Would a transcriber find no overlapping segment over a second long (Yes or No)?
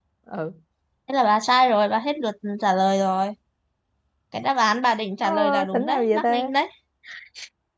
No